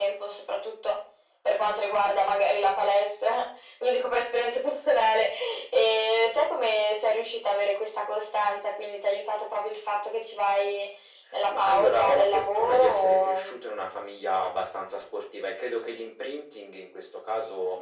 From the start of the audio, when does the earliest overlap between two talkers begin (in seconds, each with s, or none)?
11.5 s